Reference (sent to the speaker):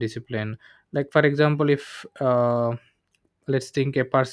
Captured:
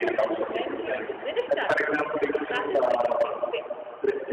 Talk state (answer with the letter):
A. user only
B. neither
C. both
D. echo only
C